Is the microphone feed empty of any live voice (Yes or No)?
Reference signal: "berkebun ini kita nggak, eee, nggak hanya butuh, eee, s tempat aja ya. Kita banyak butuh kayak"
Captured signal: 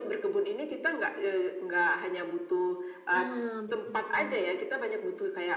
No